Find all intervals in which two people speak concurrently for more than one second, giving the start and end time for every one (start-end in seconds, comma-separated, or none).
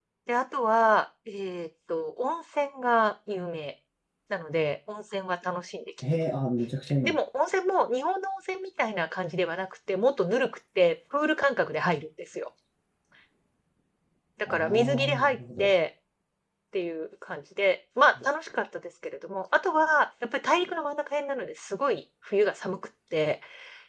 14.5-15.7